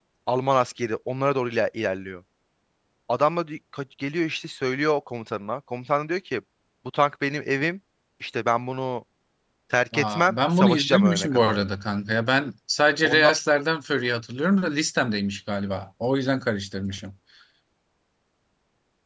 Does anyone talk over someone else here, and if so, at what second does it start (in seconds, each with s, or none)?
9.9 s